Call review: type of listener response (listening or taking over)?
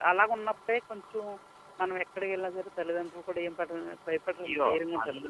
taking over